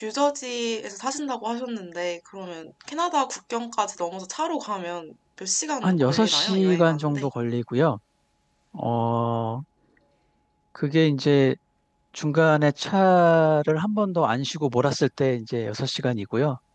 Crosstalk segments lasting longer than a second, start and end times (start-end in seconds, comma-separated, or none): 5.8-7.3